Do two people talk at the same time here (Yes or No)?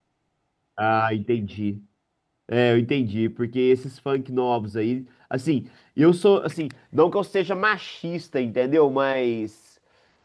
No